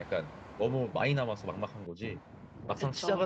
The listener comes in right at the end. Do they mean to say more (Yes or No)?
No